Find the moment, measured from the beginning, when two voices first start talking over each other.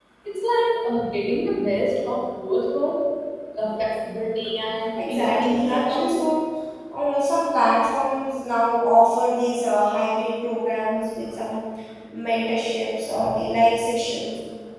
5.0 s

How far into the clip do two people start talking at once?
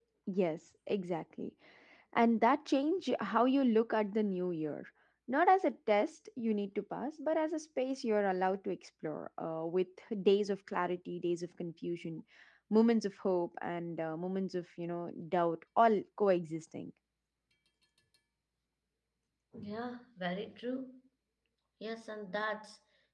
none

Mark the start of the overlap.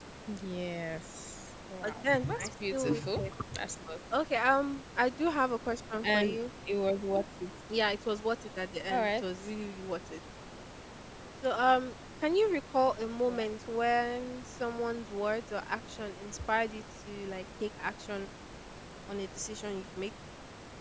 1.8 s

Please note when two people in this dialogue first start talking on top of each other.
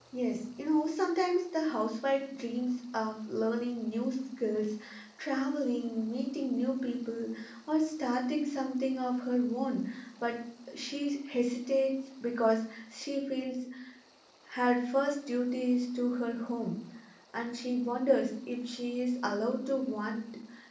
none

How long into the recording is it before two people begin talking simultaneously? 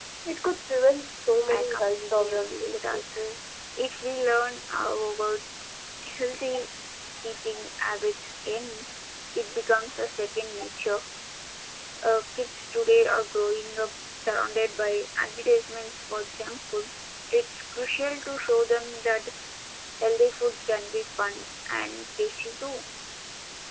1.5 s

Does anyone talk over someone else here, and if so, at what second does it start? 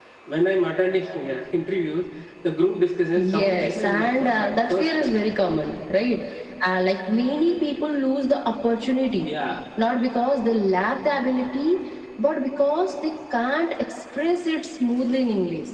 3.2 s

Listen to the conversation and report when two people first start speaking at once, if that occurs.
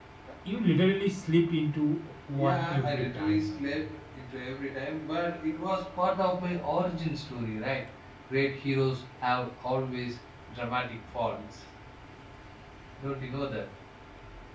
2.3 s

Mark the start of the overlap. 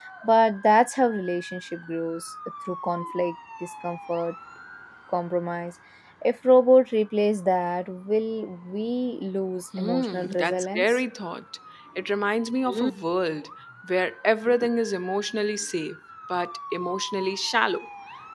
9.7 s

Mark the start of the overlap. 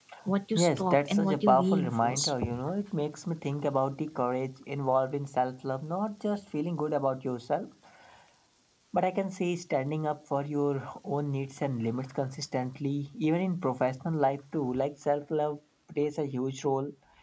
0.6 s

